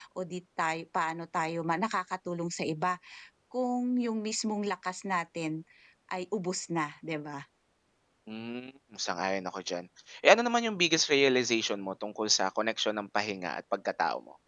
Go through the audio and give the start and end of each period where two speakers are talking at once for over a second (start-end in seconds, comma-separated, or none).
none